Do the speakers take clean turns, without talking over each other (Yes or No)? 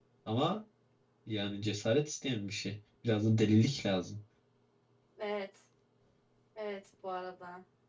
Yes